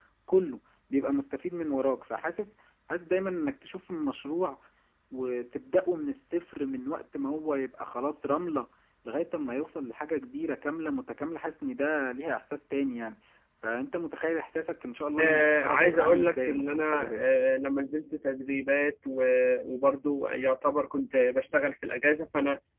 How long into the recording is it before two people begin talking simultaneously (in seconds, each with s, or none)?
15.2 s